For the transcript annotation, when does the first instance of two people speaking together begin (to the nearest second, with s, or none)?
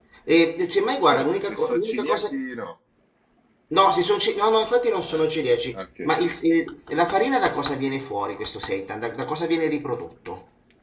1 s